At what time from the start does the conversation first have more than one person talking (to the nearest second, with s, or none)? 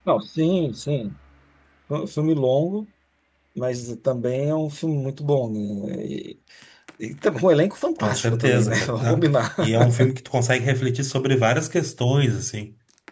8 s